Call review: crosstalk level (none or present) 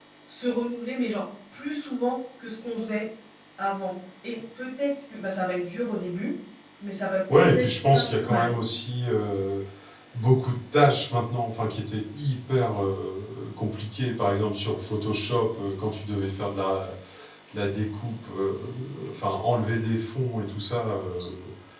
present